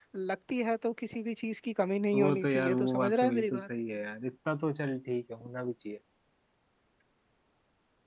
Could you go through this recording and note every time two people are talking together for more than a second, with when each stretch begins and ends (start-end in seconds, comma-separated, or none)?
2.1-3.6